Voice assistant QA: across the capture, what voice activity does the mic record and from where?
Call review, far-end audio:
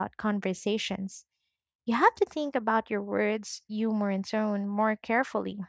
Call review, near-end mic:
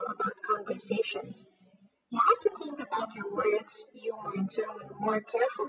echo only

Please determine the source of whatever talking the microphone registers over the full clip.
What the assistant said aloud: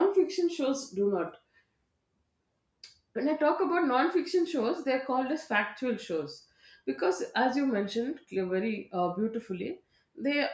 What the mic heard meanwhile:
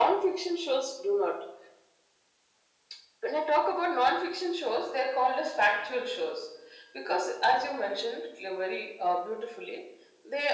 echo only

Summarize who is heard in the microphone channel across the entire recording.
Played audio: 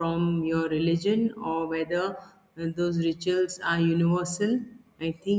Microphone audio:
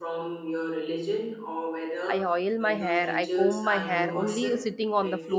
both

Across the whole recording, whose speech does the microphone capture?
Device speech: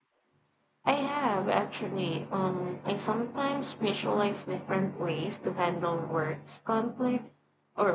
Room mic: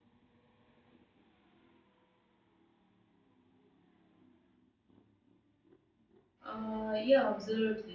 user only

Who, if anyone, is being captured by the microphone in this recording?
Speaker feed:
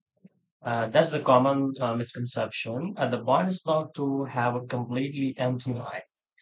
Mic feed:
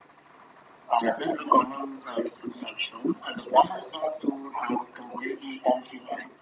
echo only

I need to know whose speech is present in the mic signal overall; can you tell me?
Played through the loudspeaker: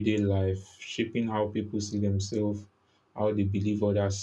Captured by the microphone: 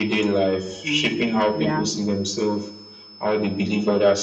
both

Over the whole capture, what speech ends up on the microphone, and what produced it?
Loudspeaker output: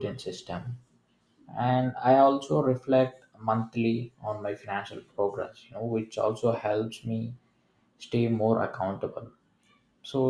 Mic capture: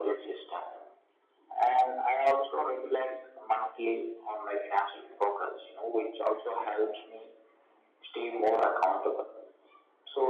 echo only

